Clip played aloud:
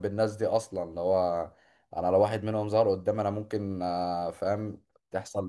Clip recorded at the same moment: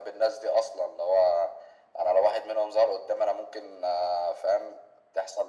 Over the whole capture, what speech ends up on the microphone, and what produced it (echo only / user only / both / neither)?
echo only